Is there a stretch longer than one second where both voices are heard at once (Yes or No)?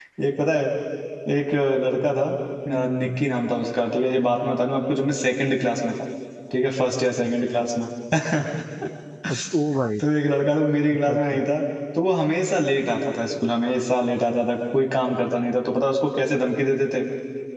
No